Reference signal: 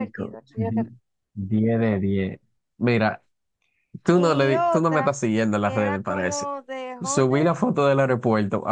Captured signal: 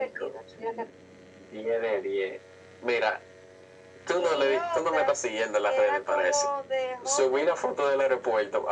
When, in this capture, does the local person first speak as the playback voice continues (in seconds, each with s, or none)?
none